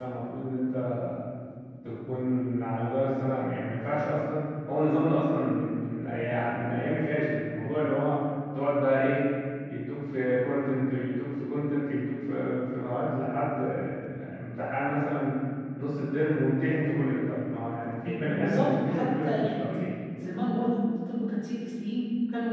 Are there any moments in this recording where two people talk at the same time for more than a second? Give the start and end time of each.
18.1-19.6

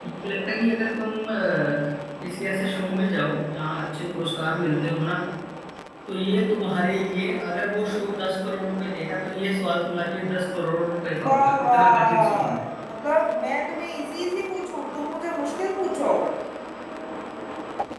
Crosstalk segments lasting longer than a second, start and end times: 11.2-12.6

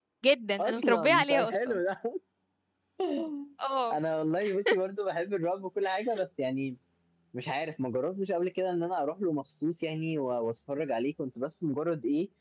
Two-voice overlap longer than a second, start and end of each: 0.6-1.8

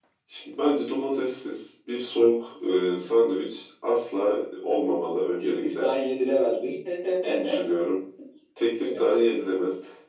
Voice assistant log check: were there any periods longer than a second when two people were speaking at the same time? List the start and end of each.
none

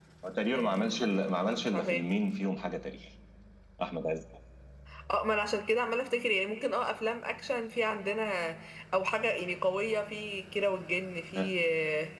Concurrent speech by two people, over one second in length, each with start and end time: 0.5-2.0

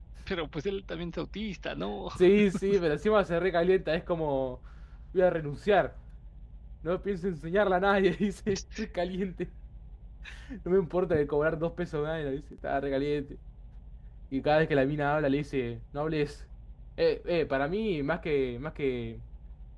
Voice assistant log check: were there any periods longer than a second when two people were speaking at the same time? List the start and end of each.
none

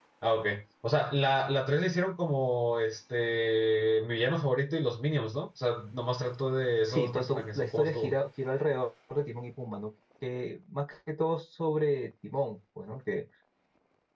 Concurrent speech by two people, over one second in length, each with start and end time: 6.8-8.1

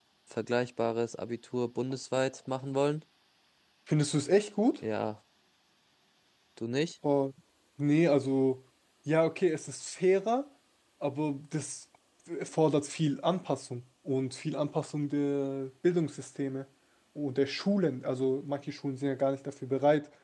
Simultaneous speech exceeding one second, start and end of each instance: none

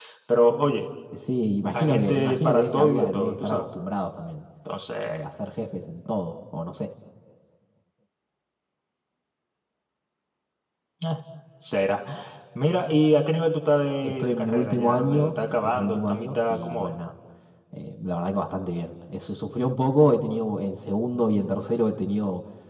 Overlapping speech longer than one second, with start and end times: 1.7-3.7, 14.0-16.9

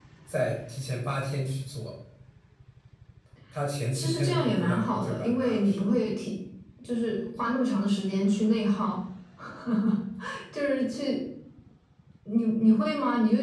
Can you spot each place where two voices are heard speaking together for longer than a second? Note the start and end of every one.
3.9-5.9

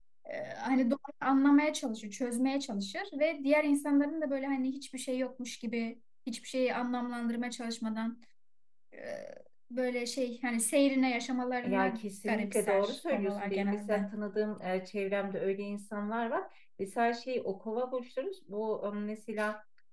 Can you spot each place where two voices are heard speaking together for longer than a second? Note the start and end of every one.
11.6-14.1

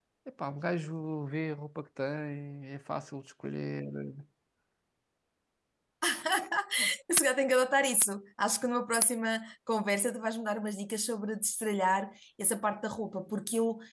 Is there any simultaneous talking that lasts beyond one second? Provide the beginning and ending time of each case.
none

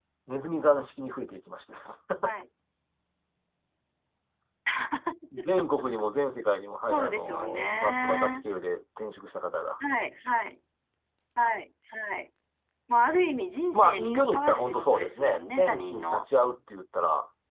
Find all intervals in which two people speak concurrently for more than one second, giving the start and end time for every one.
6.9-8.3, 13.7-16.2

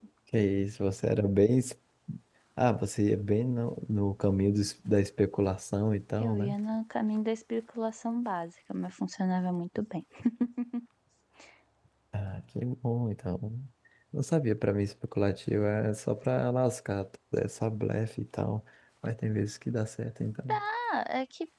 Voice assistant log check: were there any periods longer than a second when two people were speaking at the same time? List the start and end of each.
none

